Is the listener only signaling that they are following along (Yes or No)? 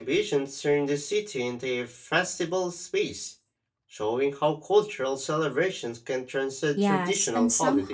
No